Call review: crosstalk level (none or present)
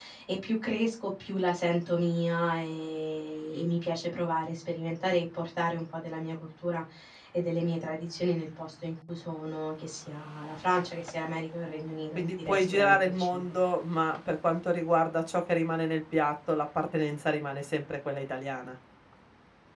present